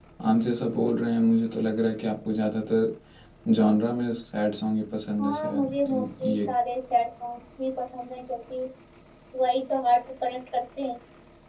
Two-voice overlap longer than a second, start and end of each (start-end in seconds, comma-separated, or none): 5.2-6.5